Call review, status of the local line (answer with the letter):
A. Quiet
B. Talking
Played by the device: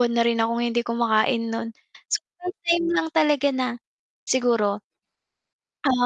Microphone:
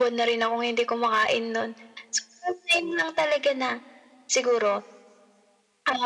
A